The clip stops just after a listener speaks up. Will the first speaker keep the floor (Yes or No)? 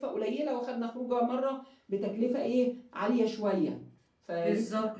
No